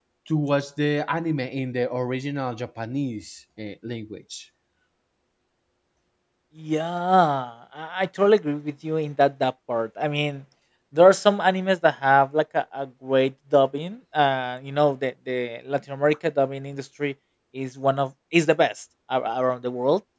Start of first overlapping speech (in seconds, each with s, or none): none